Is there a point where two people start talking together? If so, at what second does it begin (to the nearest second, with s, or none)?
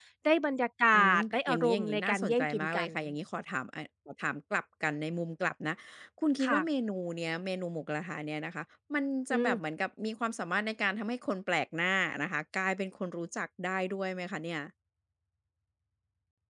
1 s